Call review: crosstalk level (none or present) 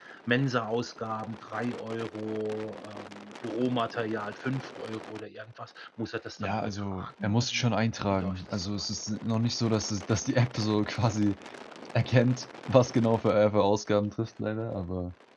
present